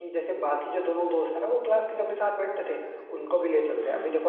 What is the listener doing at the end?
listening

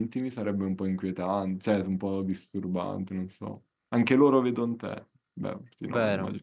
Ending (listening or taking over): taking over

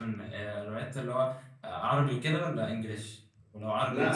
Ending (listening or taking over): taking over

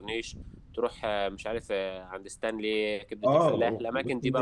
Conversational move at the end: taking over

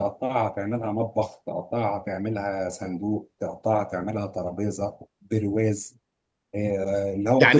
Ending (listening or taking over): taking over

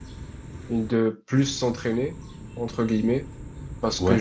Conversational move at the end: listening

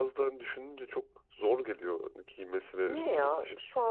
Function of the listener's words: taking over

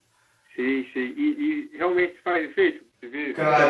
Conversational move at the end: taking over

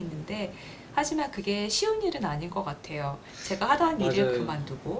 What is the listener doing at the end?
listening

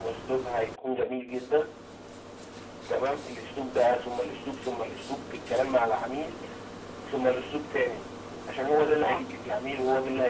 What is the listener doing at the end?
listening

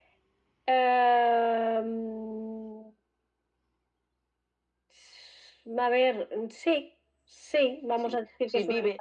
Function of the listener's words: taking over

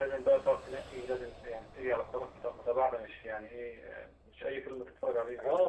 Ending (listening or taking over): taking over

